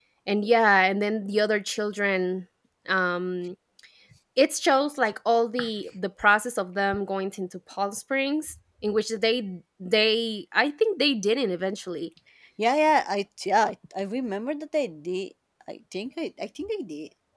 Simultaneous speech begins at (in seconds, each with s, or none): none